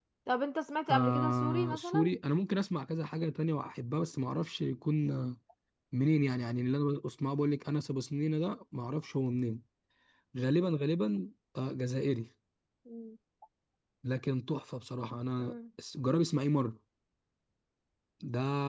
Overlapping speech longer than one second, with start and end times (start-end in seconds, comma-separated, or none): 0.9-2.1